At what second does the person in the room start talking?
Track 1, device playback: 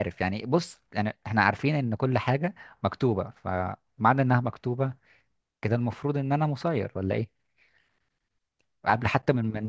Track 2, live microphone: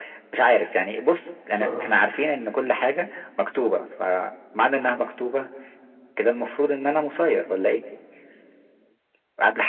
1.5 s

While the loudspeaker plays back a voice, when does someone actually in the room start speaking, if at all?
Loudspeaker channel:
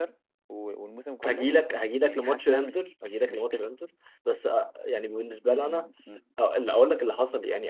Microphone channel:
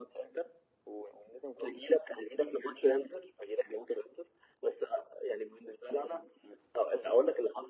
none

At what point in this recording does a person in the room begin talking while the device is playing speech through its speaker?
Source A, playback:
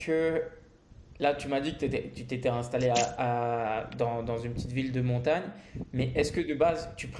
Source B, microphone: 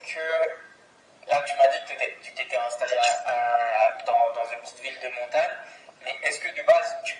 none

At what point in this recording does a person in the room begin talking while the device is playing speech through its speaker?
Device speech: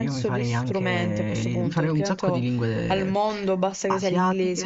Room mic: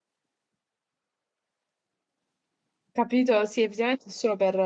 2.9 s

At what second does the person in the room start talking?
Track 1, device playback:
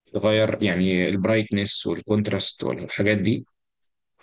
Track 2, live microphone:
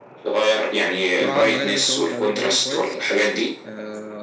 1.2 s

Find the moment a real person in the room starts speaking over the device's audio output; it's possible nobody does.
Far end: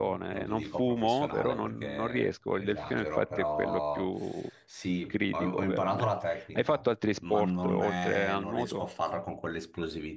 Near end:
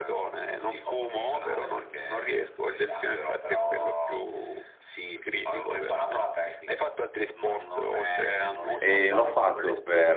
8.7 s

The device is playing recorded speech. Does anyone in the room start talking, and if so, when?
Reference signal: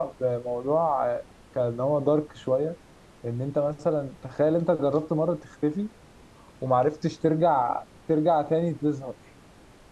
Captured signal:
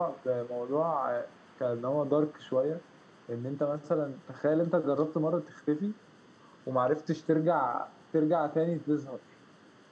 none

